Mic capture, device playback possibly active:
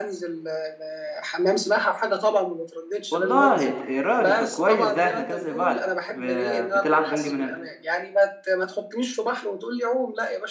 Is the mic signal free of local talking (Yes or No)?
No